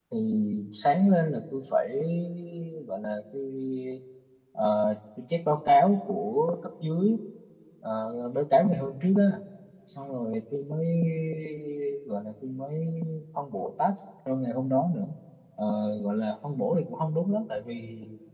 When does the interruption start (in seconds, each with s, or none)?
none